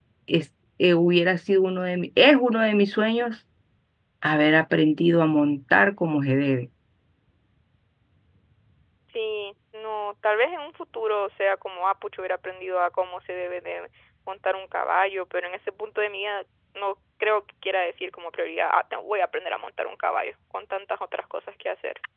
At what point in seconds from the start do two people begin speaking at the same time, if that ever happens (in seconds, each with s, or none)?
none